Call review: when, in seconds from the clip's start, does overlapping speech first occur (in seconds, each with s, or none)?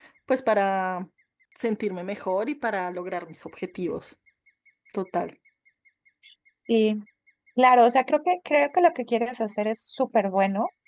none